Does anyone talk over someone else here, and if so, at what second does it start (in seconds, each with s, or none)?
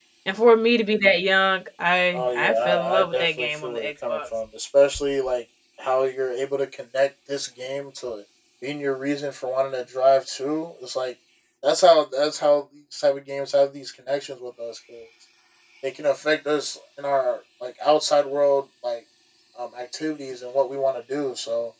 2.1 s